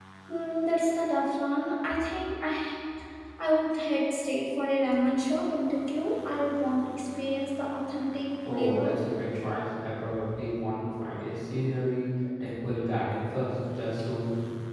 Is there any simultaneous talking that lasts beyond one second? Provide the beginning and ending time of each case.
none

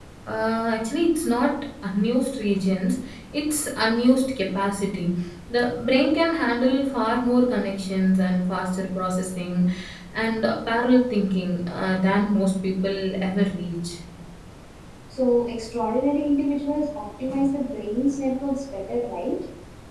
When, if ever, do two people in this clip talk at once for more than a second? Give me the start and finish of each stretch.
none

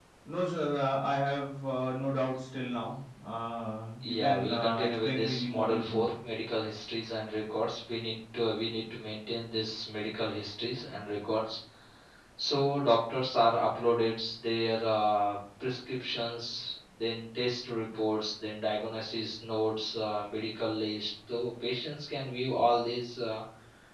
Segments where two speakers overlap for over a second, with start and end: 4.0-6.1

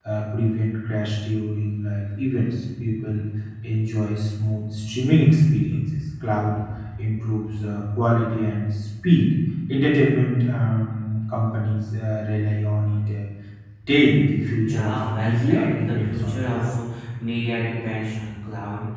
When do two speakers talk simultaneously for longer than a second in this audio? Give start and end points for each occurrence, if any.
14.6-16.7

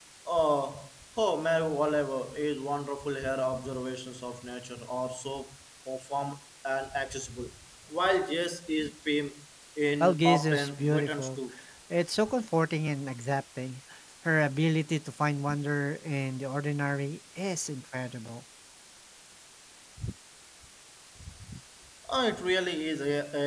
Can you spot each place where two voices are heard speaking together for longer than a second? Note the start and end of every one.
10.0-11.4

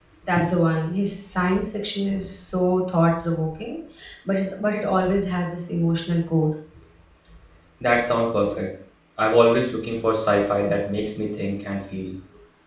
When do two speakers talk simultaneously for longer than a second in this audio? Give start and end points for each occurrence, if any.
none

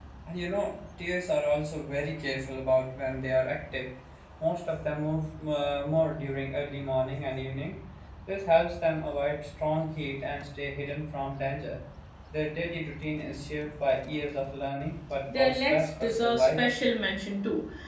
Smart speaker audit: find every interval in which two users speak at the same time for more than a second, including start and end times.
15.3-16.7

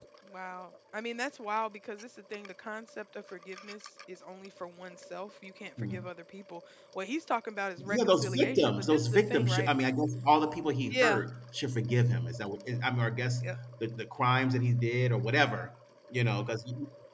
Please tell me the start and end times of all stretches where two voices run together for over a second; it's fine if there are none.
7.8-9.7

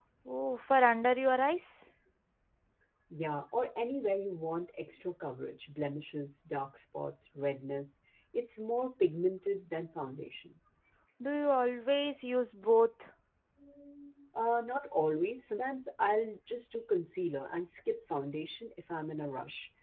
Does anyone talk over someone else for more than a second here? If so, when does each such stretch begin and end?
none

